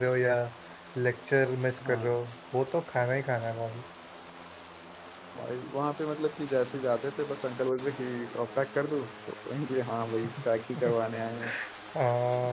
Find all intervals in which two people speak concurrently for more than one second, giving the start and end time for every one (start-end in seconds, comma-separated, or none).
none